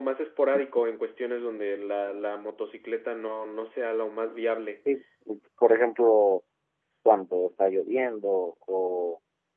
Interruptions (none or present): none